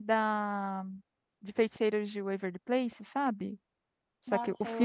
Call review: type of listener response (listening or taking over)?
taking over